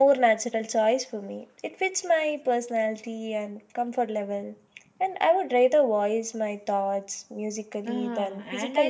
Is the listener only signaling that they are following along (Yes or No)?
No